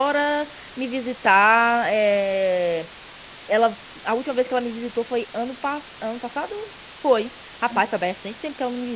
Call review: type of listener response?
listening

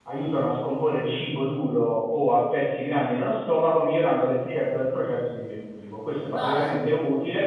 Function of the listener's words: listening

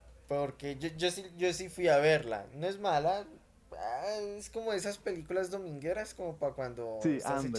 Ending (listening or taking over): taking over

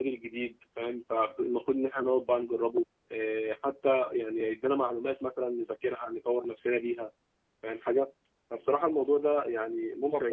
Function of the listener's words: listening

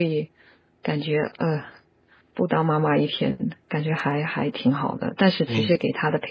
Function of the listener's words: listening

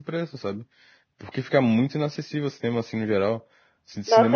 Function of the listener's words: taking over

